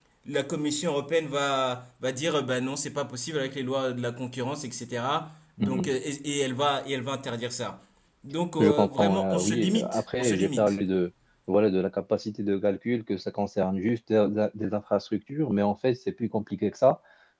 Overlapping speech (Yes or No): Yes